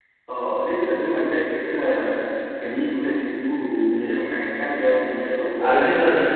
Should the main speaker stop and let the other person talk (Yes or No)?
Yes